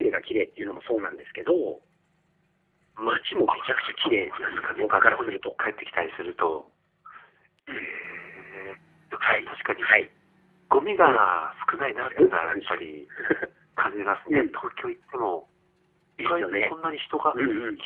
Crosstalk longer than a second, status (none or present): present